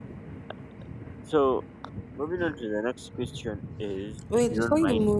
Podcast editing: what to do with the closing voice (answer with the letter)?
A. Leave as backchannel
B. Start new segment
B